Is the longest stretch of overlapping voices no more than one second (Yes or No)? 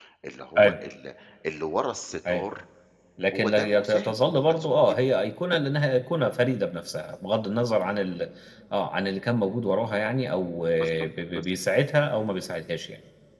No